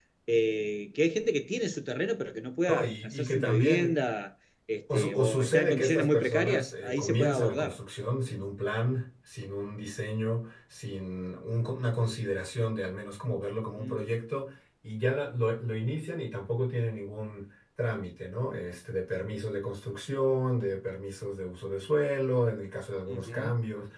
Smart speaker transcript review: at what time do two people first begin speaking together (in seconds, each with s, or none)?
2.7 s